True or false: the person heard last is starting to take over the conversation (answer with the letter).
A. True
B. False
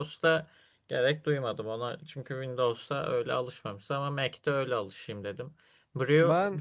B